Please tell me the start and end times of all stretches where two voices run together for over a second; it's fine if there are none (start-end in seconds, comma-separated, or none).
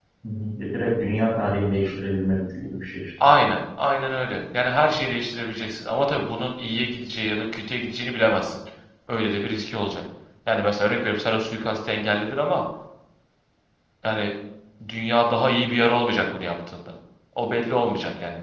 none